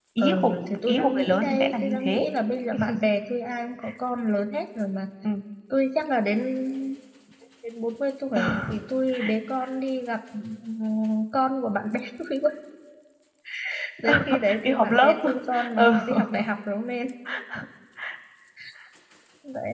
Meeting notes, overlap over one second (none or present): present